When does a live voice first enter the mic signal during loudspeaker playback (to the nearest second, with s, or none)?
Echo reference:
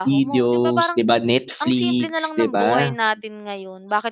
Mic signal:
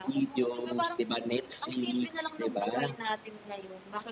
none